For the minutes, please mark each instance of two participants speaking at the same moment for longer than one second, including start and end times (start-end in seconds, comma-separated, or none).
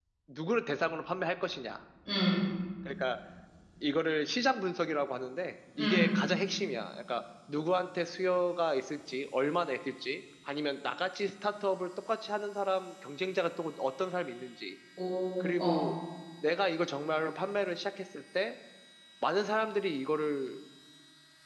none